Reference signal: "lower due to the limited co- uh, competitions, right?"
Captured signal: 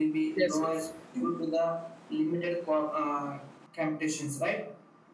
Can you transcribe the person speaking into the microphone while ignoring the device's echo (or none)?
yes yes